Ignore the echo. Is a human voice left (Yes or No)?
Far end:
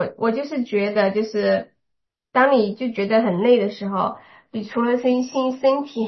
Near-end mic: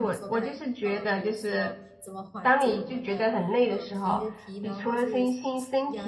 Yes